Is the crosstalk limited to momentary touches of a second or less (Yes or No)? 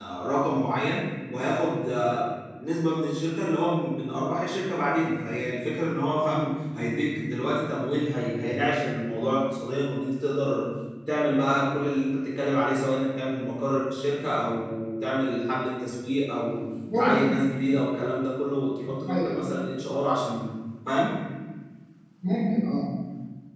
Yes